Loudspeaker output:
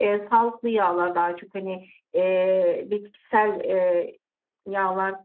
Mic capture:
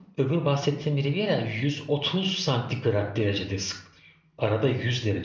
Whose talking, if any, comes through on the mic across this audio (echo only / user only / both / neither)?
user only